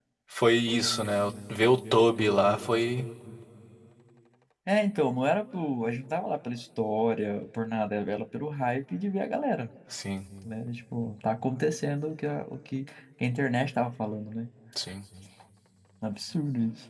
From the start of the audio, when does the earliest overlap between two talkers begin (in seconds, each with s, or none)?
none